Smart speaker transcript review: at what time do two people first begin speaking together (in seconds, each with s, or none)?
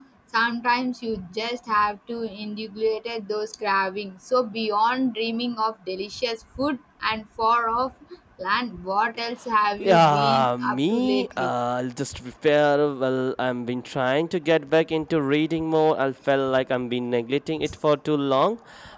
9.8 s